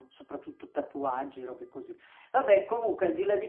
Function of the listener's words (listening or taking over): listening